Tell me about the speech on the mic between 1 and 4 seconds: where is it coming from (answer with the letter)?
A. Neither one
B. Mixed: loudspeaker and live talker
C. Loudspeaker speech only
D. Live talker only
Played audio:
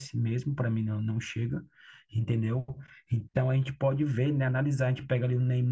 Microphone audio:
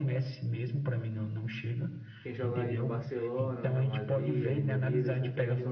B